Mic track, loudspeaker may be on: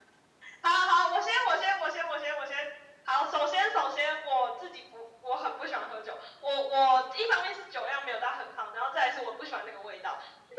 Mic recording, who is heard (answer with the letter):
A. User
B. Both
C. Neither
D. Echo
D